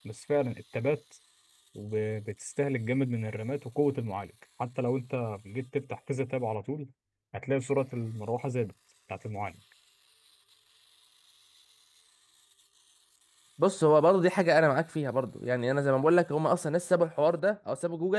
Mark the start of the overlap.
none

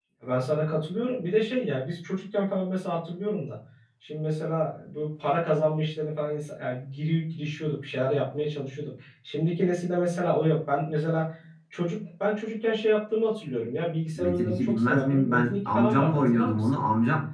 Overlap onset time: 14.2 s

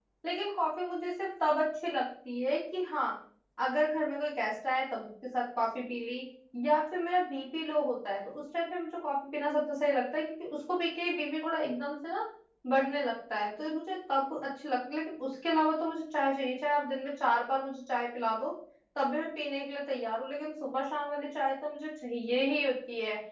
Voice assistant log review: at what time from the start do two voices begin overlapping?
none

